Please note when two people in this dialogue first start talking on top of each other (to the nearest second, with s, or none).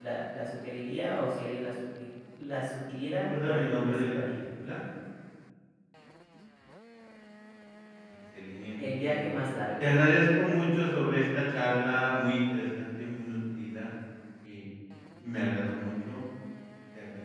3 s